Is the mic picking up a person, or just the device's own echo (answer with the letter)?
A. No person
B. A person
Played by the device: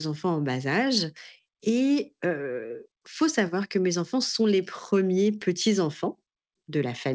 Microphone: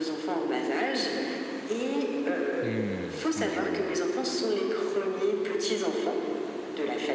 B